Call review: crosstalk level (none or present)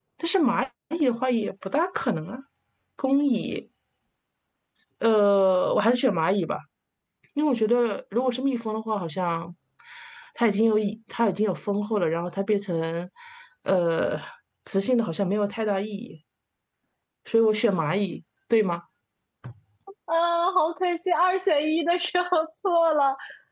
none